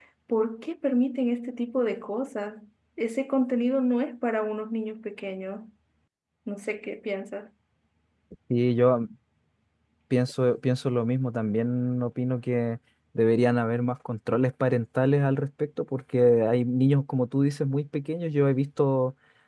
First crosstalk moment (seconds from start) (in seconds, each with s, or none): none